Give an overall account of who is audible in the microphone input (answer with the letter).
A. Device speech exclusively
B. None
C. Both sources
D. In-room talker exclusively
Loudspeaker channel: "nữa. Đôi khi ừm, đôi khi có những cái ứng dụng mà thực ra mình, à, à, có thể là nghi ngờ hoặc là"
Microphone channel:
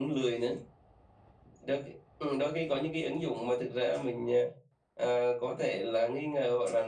A